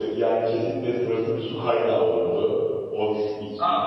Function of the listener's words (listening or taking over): taking over